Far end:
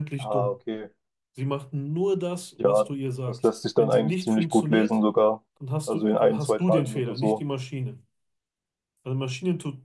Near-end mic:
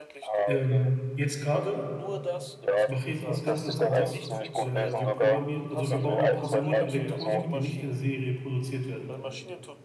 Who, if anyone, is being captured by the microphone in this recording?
both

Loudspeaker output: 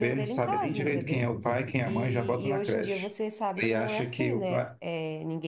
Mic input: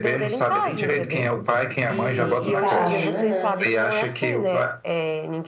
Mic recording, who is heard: both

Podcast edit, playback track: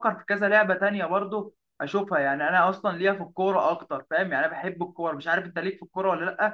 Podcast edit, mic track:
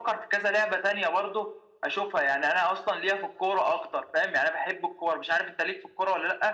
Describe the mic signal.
echo only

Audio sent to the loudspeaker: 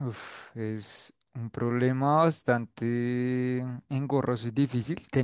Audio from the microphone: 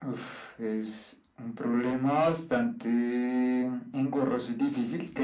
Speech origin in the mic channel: echo only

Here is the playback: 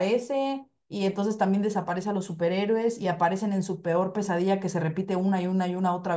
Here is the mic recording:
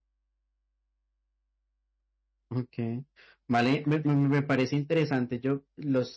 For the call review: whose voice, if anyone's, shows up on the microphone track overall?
user only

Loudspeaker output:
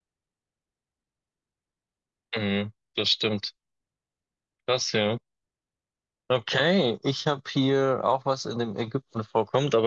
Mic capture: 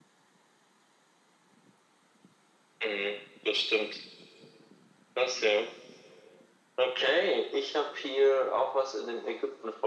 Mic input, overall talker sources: echo only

